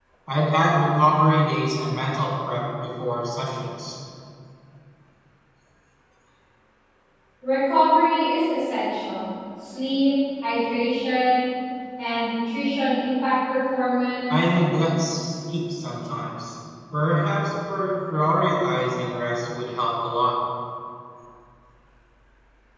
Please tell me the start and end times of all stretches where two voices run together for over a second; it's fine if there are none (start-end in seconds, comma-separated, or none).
none